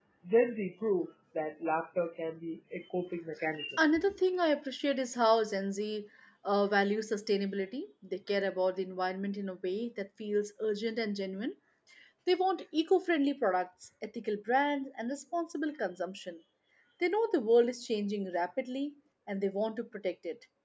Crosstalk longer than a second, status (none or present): none